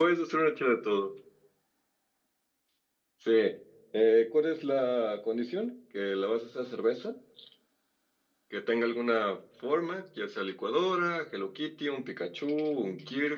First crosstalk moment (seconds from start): none

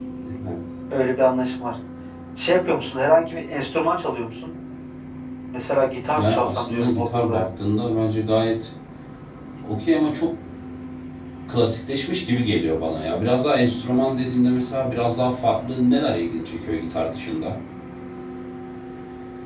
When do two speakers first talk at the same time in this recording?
6.2 s

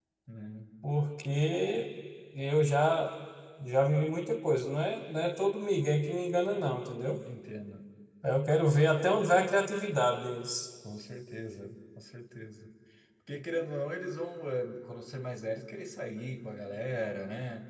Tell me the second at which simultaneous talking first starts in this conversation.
none

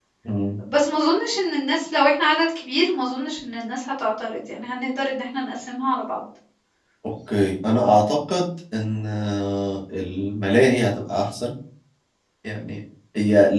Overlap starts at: none

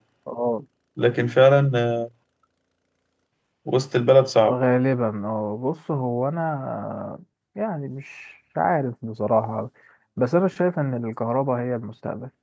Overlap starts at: none

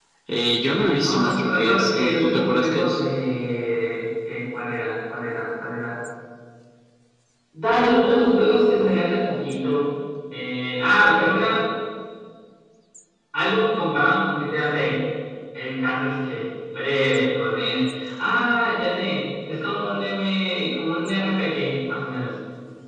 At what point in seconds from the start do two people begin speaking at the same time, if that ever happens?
0.7 s

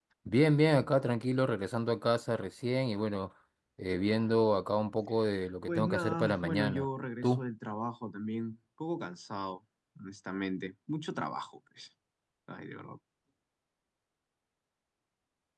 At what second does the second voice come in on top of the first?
5.7 s

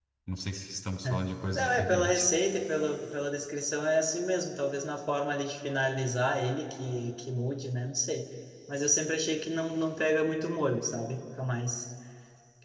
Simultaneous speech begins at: 1.0 s

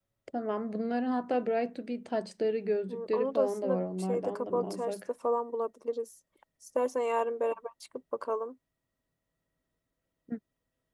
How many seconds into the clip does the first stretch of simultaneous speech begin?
2.9 s

